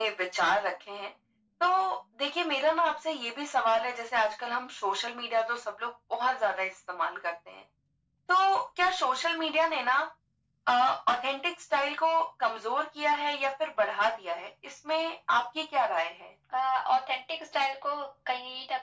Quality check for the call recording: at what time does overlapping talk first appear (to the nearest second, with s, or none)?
none